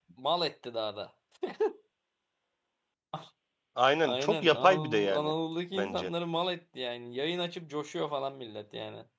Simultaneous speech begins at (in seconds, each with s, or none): 4.0 s